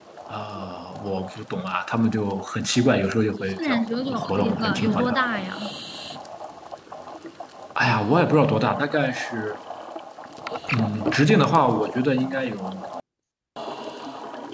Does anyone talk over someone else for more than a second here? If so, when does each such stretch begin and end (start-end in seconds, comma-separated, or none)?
3.6-5.1